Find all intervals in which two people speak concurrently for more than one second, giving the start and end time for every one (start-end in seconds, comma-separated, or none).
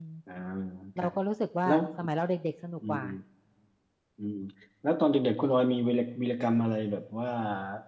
none